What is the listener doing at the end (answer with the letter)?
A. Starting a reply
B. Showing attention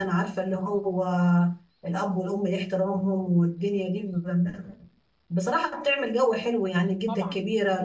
B